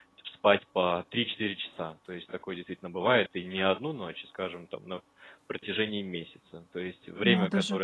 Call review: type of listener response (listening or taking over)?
listening